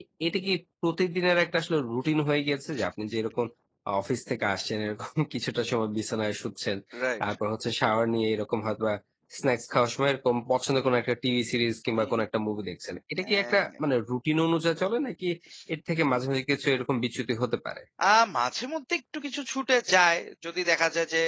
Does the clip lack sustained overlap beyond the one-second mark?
Yes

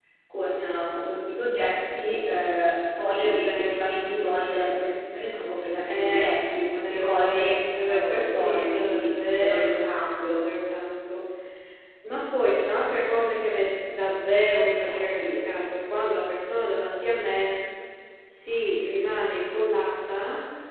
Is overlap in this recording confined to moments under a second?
No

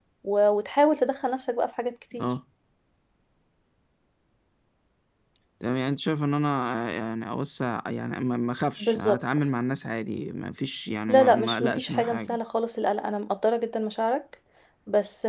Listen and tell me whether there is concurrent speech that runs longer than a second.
Yes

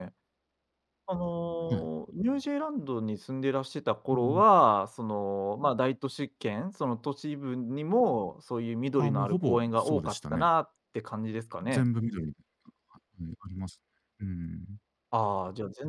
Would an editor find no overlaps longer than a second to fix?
No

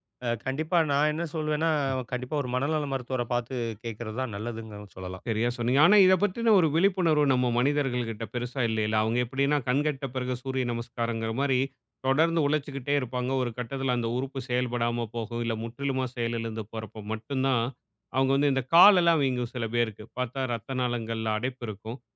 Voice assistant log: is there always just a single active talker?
Yes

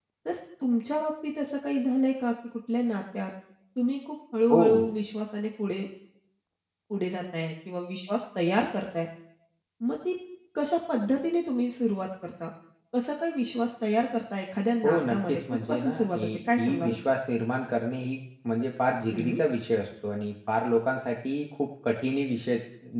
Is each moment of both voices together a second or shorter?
No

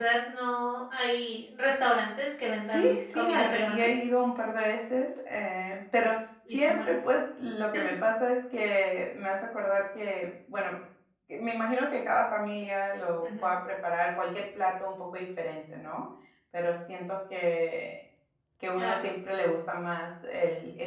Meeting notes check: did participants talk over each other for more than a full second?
Yes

